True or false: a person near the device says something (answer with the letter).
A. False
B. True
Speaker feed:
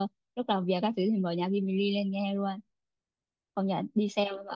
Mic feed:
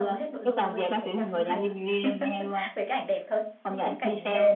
B